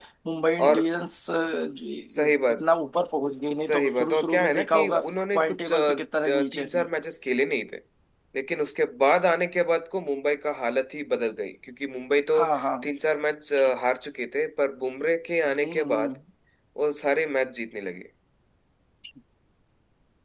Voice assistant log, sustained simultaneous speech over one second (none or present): present